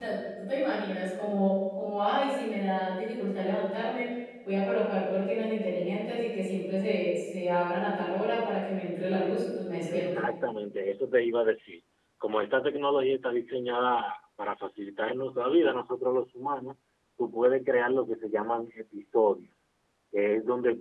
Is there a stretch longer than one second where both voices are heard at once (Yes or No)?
No